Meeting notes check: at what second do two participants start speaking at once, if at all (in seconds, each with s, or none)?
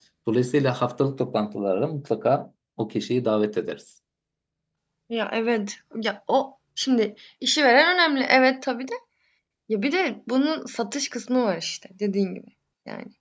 none